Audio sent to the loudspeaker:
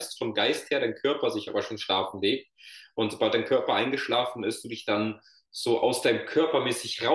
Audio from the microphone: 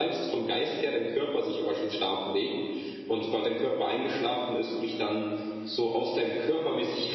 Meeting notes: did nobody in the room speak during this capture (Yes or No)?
Yes